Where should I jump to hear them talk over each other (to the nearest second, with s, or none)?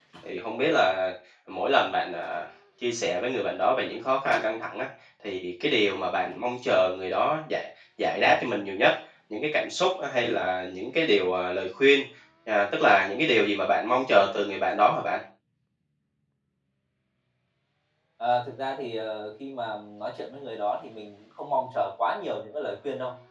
none